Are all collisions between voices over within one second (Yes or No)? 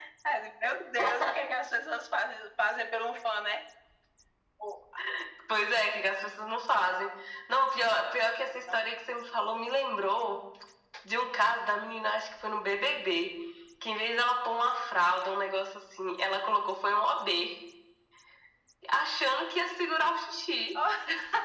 Yes